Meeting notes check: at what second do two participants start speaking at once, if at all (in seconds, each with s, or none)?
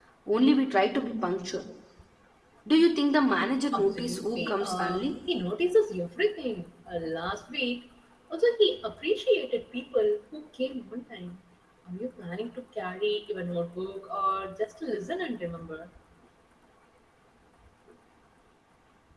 3.7 s